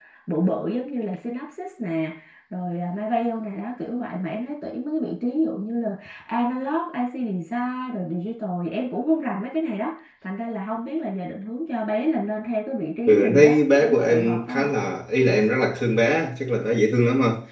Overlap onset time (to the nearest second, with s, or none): 13 s